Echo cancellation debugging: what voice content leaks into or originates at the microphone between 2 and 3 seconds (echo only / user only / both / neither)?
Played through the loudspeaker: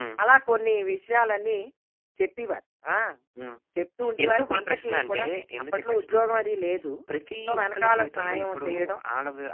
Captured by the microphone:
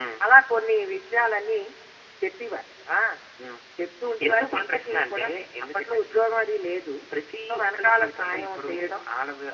echo only